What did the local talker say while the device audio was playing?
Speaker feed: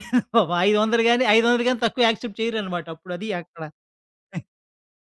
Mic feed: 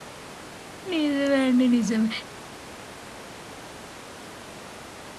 నిజమే అండి. నిజమే.

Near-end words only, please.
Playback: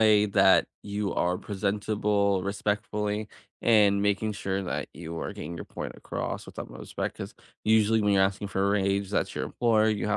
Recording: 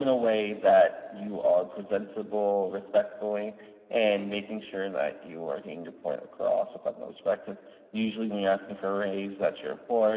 none

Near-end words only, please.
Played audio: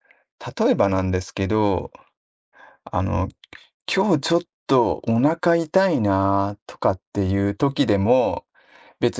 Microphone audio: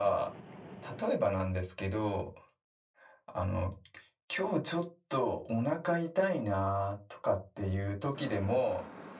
none

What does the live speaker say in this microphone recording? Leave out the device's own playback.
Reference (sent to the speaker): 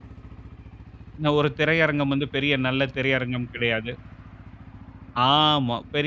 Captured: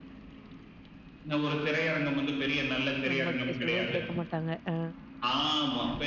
நம்ம கே சொல்றது கேட்க மாட்டாங்க. ஆ,

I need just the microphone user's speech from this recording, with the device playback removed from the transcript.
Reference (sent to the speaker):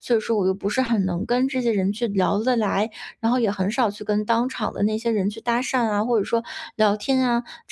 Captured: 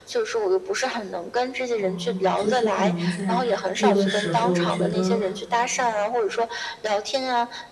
哦，就是可能在这个时候觉得，

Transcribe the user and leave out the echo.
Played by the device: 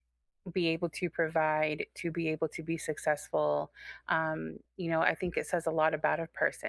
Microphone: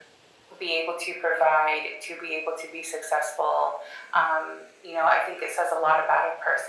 none

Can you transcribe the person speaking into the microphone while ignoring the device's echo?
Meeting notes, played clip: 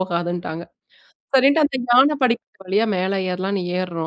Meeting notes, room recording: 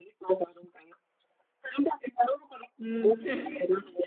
ம்.

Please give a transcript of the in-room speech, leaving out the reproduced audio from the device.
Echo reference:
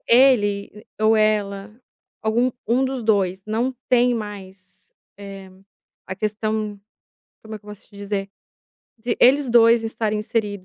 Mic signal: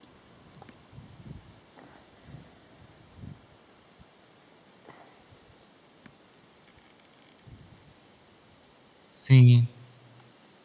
sim.

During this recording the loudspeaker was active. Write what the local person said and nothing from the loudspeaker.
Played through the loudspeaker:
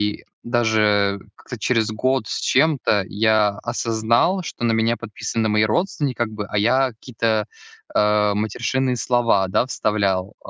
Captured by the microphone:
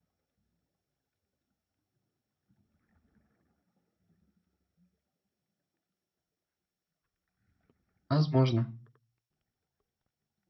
возможно.

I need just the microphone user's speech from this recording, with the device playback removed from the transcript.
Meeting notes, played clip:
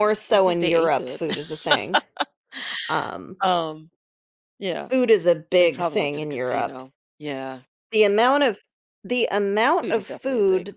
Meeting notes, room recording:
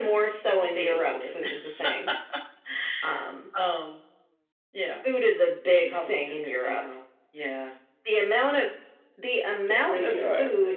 The graveyard.

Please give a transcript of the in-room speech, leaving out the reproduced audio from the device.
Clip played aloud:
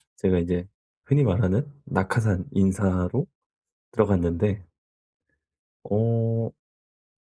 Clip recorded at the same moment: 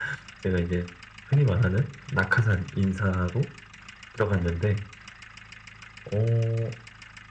none

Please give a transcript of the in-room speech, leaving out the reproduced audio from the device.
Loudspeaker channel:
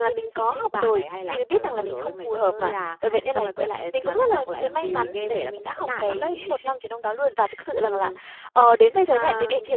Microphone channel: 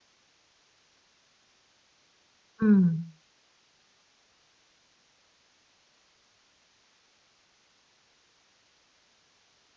Ừm,

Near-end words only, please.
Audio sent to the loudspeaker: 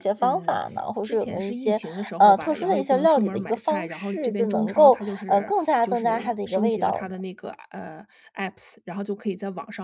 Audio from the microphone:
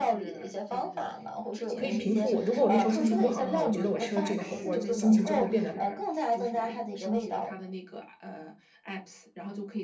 可以平复我。如果我那时候心情不好的话，我觉得我吃了这个火锅儿心情就会变得

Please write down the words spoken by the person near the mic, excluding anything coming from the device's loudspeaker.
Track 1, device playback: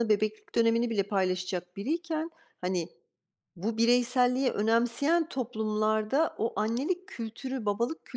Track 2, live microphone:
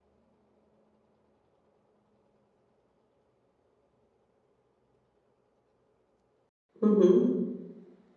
Hı hı.

